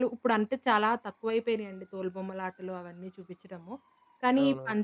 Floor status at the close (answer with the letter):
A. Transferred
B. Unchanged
B